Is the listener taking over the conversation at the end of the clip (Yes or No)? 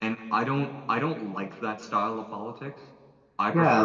Yes